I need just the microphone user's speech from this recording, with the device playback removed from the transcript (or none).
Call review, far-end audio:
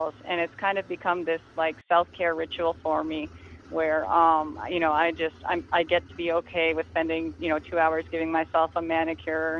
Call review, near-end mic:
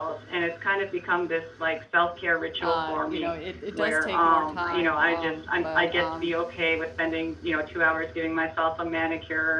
uh, you know, it it does take more time, um, but, um,